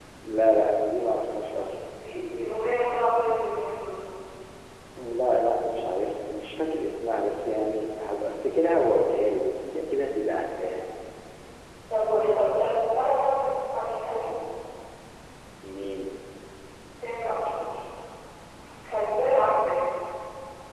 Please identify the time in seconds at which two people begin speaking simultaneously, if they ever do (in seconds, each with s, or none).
none